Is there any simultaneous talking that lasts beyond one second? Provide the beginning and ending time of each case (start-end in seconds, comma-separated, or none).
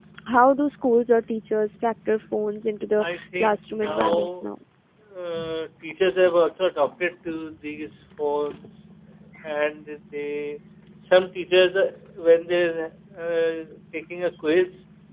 3.0-4.4